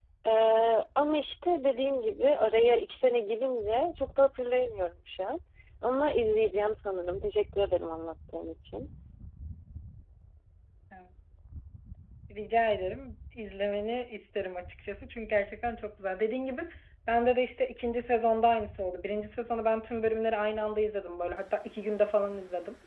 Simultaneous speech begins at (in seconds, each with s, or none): none